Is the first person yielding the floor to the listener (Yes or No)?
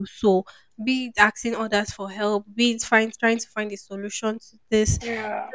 No